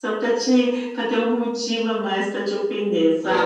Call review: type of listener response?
taking over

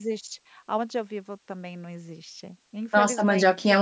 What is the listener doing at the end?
taking over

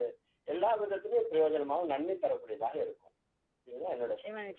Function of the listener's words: taking over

